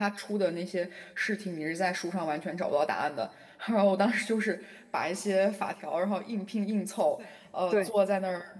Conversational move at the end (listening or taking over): listening